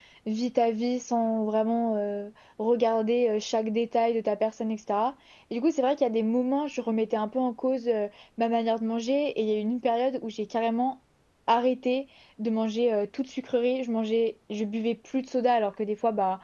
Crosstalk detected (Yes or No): No